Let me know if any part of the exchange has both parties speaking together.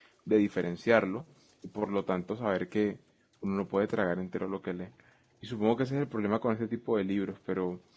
No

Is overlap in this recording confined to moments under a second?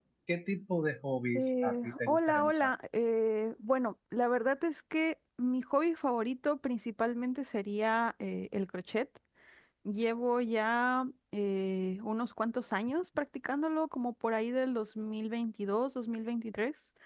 No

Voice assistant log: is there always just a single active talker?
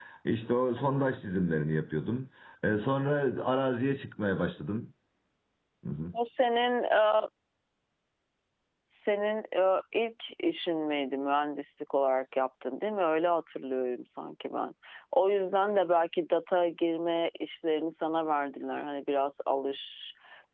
Yes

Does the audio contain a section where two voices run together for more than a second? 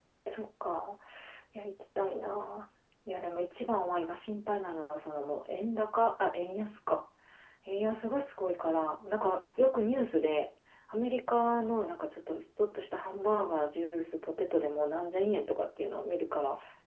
No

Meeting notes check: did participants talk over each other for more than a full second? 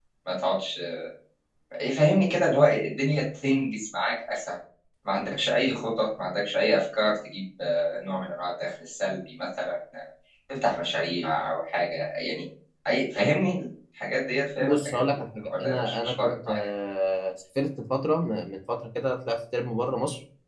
Yes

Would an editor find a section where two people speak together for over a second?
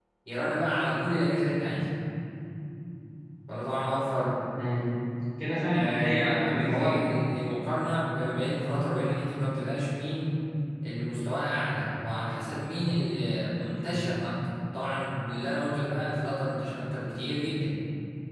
Yes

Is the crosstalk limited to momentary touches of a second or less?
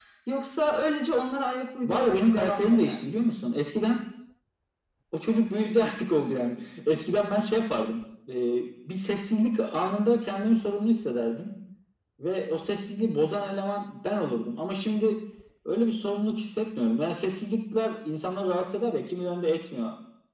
No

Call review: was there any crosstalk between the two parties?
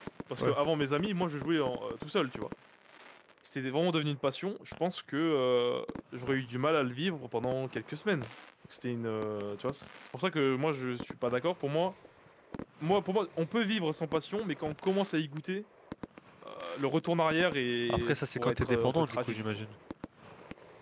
Yes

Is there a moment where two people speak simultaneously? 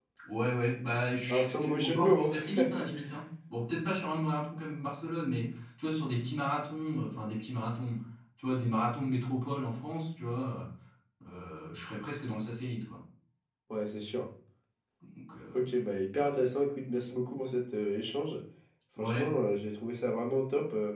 Yes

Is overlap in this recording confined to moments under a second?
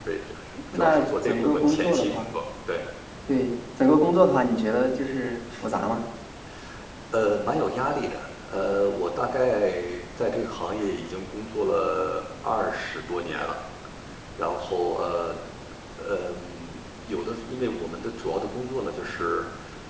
No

